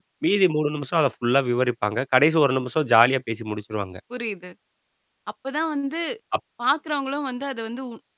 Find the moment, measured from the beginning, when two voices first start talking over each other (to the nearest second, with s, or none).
none